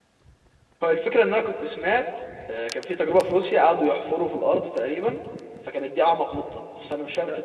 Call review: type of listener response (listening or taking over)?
taking over